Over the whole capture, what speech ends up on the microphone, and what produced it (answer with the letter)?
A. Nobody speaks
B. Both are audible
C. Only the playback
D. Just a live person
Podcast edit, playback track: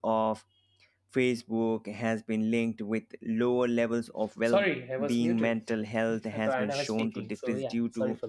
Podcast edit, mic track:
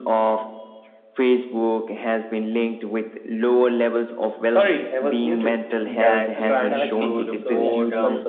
B